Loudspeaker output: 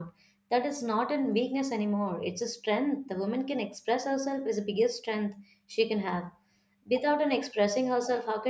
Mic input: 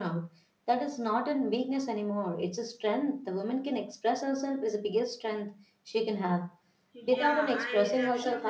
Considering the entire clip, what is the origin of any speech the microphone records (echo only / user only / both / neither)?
both